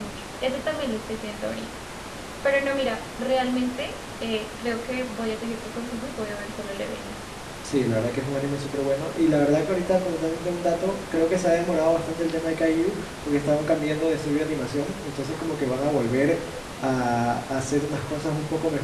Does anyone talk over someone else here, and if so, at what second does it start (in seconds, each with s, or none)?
none